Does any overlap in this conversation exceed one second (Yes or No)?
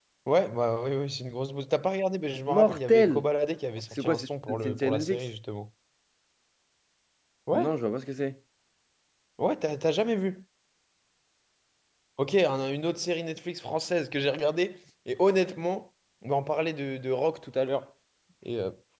Yes